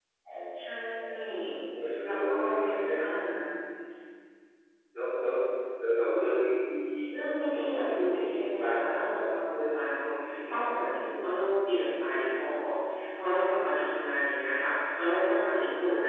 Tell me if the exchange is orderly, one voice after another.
No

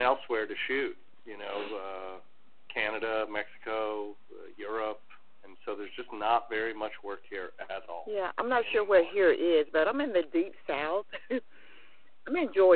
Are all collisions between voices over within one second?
Yes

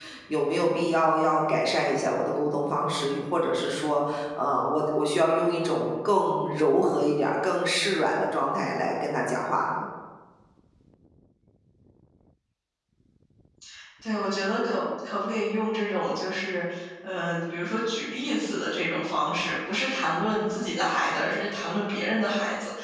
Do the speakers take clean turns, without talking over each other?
Yes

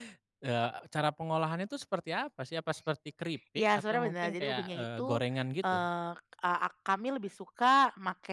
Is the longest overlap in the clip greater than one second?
Yes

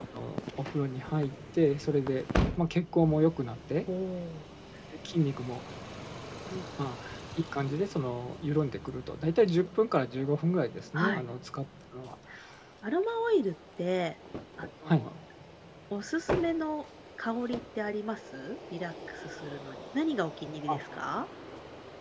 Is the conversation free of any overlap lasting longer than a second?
Yes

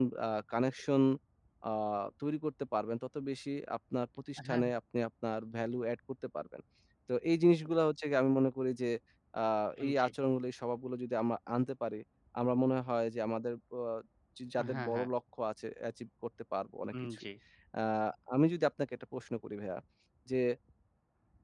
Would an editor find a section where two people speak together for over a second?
No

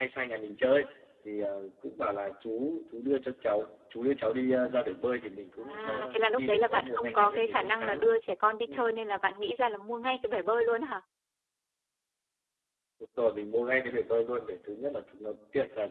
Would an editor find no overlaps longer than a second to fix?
No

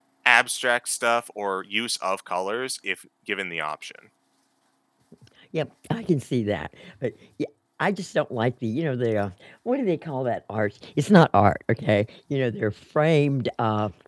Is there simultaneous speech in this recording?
No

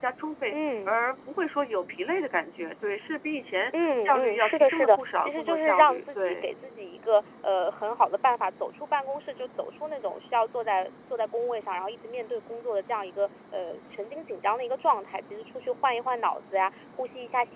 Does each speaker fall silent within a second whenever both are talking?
No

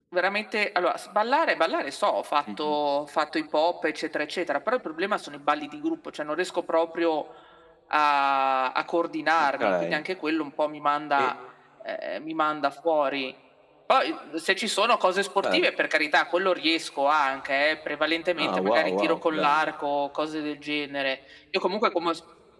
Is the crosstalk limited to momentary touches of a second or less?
No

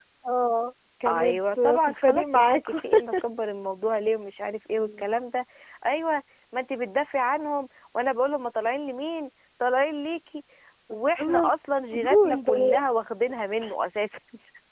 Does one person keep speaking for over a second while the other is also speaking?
Yes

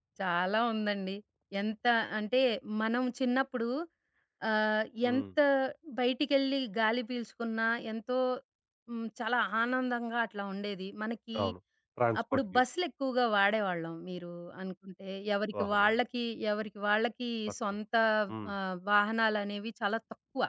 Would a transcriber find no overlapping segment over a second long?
Yes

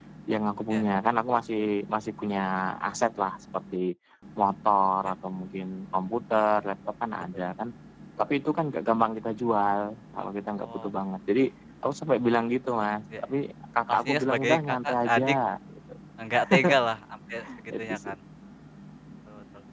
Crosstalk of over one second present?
Yes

